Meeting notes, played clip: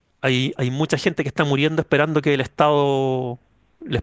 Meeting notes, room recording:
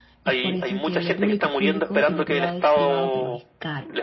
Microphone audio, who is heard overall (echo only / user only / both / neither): both